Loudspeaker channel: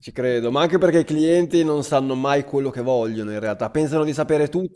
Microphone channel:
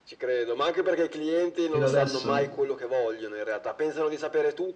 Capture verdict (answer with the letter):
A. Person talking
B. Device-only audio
A